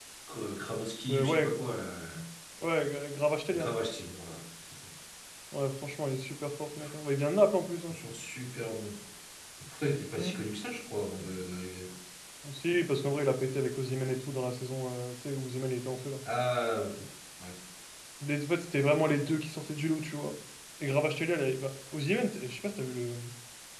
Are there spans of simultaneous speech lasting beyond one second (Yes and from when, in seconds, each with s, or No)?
No